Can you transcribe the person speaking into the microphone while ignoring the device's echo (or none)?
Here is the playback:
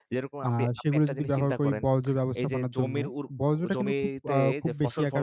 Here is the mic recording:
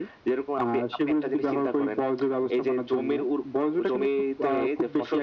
none